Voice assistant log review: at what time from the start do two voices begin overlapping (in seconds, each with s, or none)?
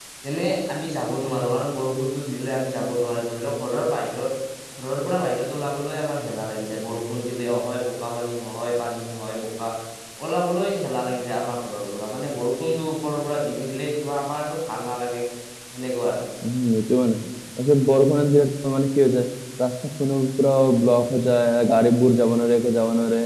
none